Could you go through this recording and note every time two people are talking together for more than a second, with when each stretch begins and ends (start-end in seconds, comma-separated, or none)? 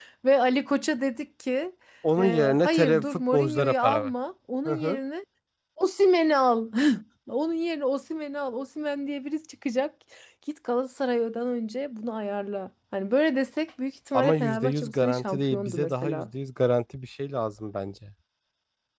2.2-4.1, 14.1-16.3